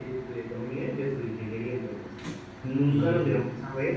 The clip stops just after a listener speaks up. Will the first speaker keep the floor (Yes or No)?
Yes